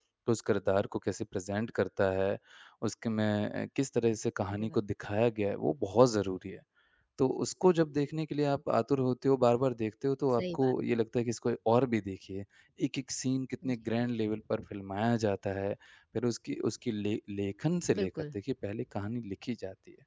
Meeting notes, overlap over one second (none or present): none